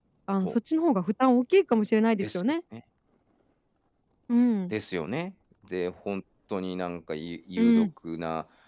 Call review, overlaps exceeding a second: none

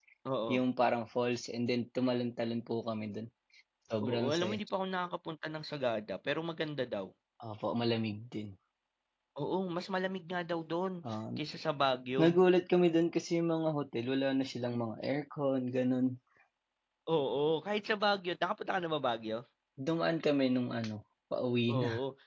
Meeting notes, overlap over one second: none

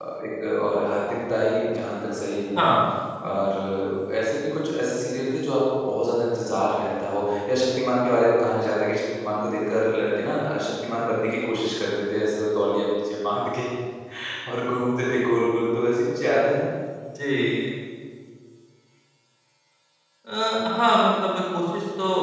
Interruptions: none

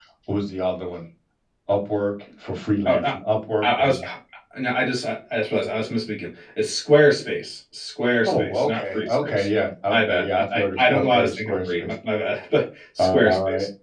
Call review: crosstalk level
present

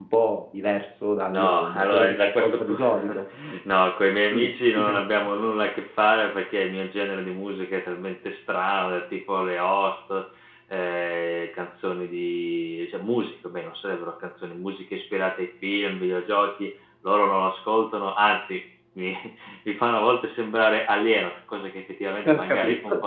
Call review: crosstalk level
present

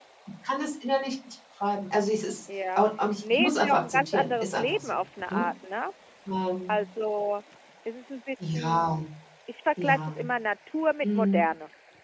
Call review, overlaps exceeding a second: present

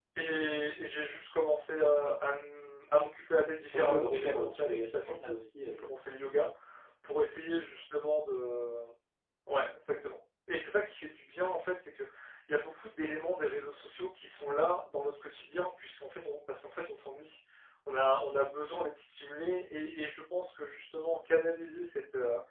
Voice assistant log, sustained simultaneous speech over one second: present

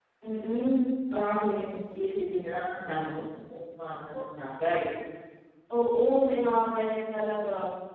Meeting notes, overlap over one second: none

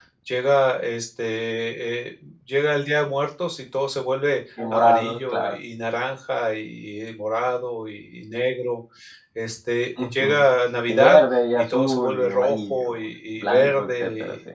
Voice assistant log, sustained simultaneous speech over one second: present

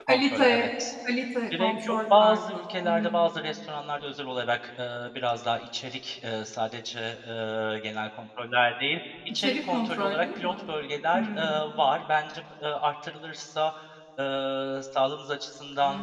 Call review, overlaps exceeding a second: present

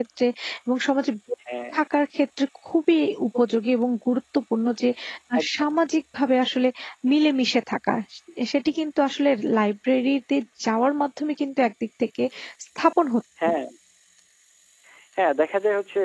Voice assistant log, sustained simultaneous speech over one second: none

